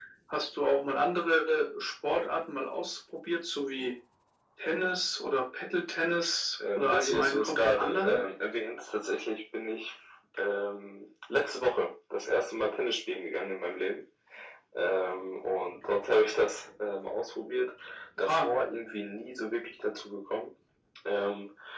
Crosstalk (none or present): present